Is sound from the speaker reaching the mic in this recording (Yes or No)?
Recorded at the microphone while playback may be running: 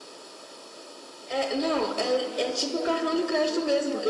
Yes